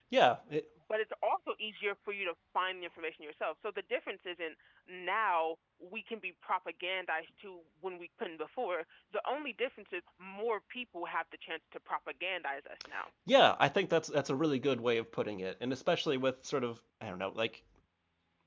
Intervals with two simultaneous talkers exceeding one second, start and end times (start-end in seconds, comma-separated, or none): none